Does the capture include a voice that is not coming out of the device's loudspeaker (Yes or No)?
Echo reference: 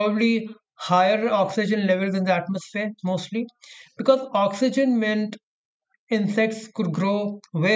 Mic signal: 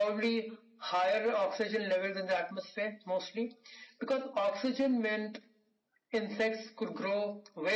No